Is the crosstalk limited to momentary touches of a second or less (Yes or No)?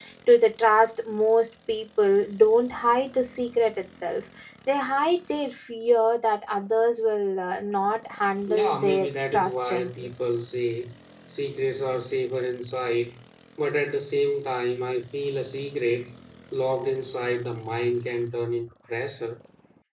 No